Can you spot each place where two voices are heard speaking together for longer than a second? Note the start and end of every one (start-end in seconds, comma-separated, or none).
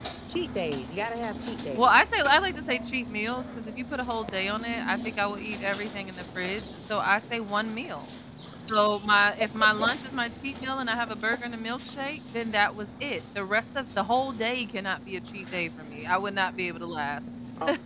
none